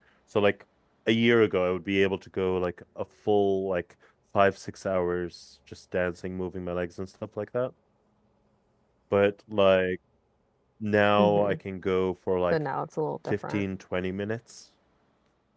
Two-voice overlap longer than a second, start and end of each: none

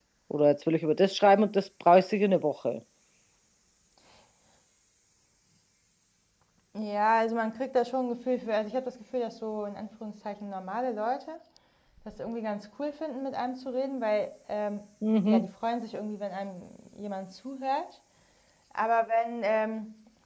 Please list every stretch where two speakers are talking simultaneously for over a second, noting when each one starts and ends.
none

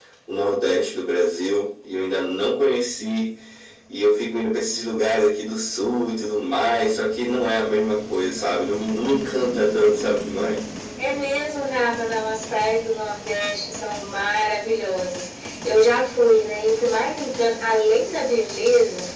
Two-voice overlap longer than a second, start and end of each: none

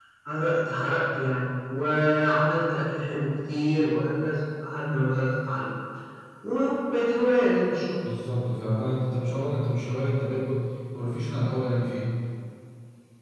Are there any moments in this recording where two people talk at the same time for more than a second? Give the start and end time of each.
none

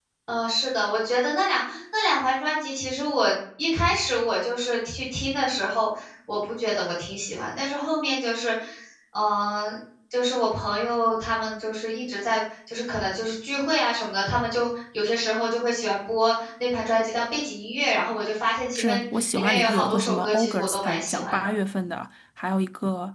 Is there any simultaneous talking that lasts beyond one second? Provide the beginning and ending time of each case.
18.8-21.6

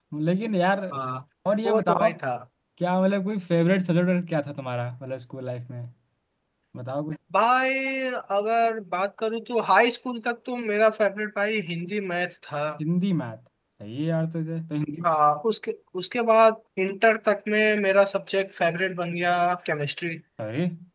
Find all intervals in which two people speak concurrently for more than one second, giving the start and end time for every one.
none

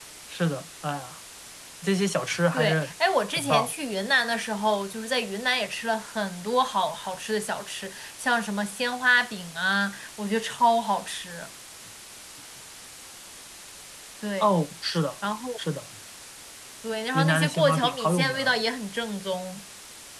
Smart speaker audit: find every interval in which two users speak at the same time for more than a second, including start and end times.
17.1-18.5

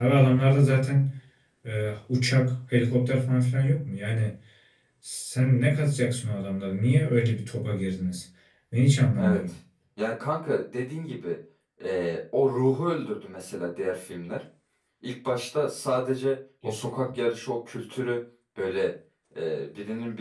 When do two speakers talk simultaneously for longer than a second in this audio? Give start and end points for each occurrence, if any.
none

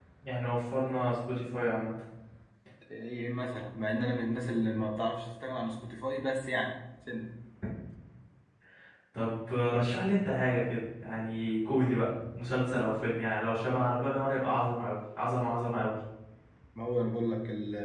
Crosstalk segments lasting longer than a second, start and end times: none

